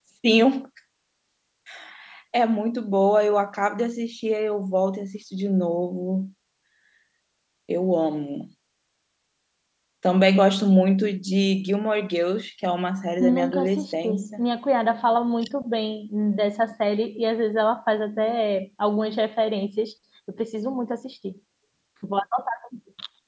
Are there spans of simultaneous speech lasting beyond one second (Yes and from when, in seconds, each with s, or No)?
Yes, from 13.2 s